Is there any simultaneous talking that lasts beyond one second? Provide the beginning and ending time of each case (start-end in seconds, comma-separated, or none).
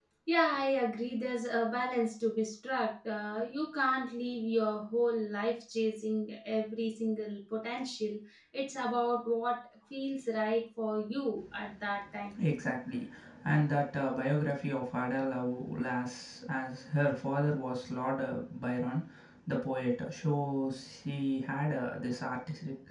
none